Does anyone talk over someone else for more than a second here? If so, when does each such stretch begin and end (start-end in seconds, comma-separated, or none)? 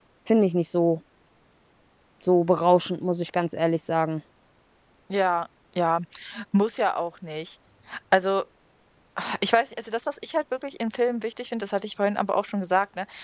none